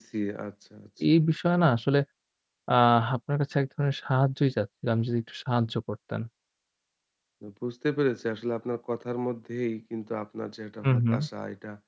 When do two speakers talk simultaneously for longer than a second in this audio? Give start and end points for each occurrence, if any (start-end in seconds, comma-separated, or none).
none